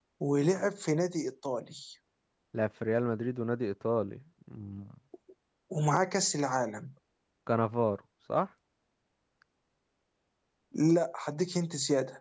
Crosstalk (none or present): none